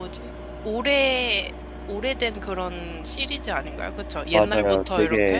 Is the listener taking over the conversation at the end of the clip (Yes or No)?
Yes